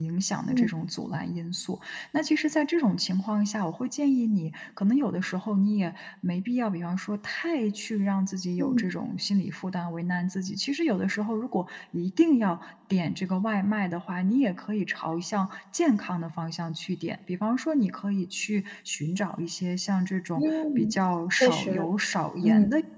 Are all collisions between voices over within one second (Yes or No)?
Yes